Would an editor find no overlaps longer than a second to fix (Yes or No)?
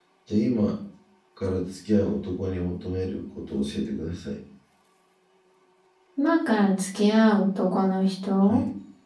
Yes